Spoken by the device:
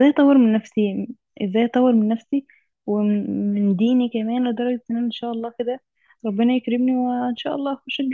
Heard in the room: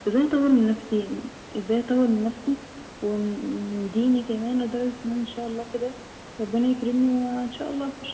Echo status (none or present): present